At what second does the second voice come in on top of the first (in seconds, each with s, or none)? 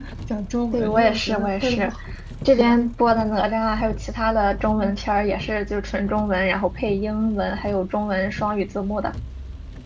0.7 s